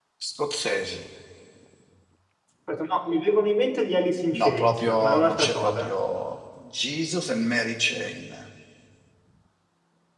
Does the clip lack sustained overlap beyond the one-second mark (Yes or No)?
No